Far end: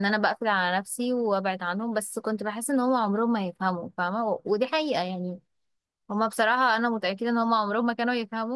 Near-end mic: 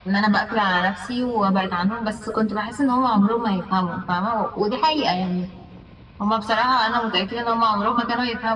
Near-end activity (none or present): none